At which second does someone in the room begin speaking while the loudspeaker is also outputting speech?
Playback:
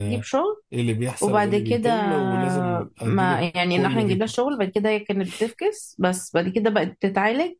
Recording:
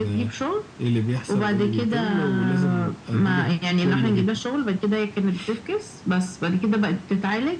none

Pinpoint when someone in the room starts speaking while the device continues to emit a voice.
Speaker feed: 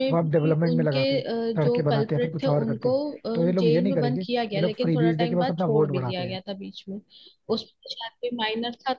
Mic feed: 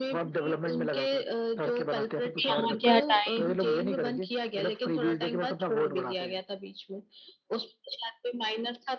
2.4 s

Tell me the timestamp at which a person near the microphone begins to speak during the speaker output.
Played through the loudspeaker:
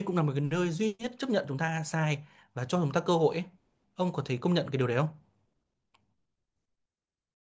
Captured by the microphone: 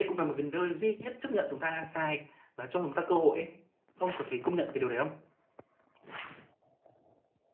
none

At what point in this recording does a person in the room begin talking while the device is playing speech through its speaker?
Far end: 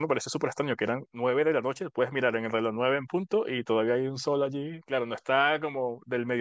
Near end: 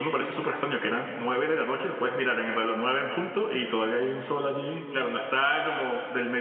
none

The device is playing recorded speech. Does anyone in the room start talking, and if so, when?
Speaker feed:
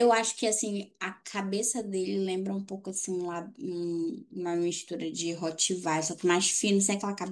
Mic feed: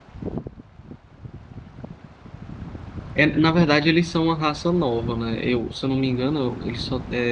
3.1 s

